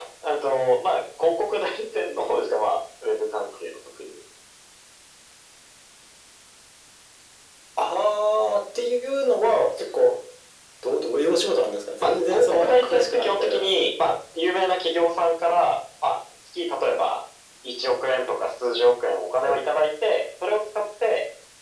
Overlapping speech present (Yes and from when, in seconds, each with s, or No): Yes, from 12.0 s